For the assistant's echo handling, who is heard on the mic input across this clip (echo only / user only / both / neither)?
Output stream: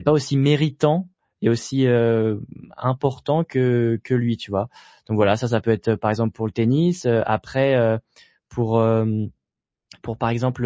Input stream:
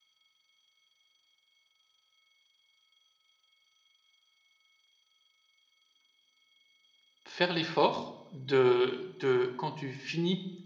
user only